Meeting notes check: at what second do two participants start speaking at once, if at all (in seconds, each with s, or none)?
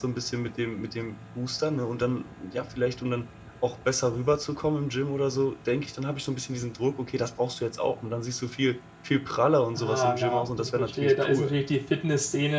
9.8 s